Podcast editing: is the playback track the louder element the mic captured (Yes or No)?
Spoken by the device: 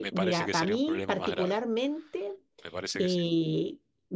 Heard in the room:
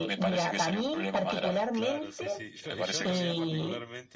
Yes